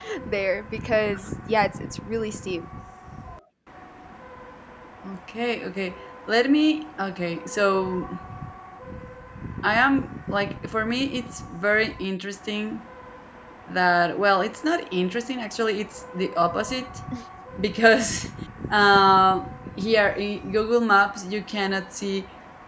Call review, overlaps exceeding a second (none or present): none